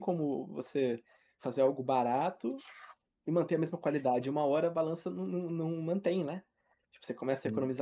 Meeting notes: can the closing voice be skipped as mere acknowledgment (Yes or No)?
Yes